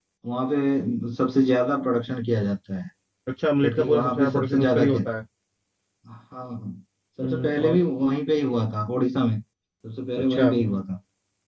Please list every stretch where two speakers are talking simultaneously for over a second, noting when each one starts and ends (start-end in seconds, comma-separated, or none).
3.6-5.0